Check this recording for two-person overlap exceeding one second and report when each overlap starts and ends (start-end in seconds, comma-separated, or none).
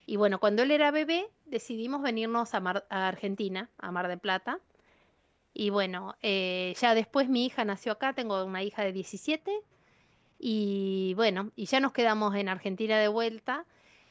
none